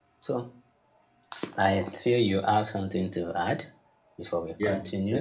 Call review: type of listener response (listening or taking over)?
taking over